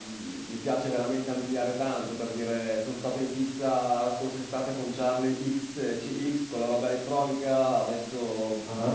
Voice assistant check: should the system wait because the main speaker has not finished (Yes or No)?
Yes